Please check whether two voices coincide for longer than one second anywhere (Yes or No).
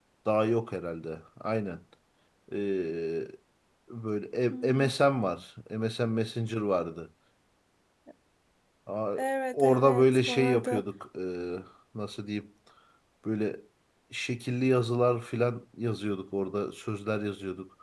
Yes